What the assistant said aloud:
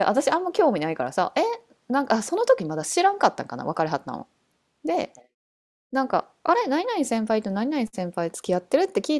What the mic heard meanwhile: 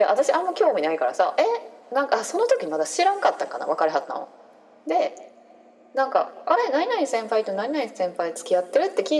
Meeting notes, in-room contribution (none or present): none